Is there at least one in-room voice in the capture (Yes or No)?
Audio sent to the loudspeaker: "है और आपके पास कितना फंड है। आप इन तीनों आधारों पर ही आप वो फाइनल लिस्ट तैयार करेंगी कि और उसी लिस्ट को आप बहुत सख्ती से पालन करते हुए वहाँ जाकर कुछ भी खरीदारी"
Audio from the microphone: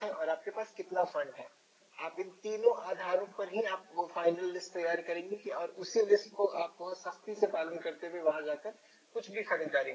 No